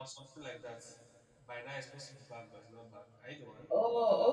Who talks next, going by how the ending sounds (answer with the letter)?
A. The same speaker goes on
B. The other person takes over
B